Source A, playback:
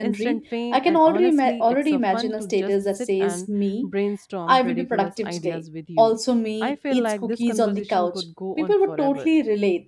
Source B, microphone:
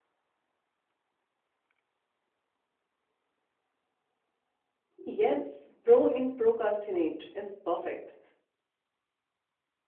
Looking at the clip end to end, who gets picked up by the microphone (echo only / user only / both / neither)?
user only